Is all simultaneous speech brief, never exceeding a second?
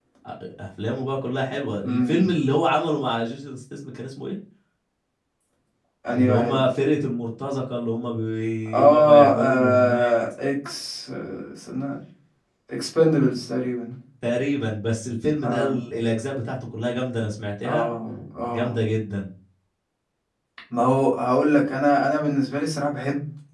No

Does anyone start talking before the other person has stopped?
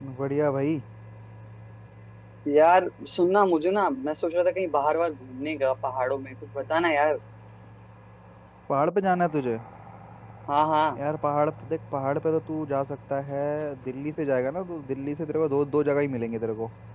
No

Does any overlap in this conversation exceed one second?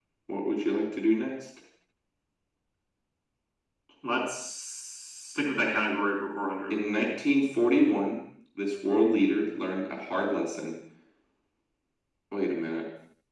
No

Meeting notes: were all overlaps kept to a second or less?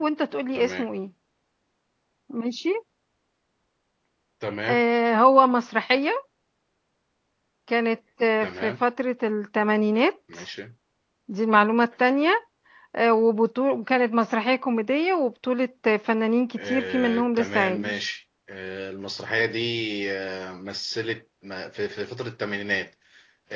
No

